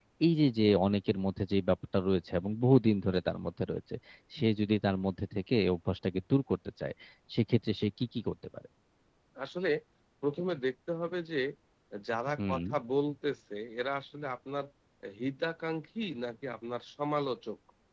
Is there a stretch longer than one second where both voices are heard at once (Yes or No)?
No